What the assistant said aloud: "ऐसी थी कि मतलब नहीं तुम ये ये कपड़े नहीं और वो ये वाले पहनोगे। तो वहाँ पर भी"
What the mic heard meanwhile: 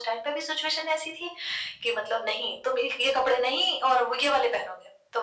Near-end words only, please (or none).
none